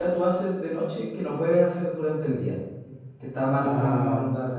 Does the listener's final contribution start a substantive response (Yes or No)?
No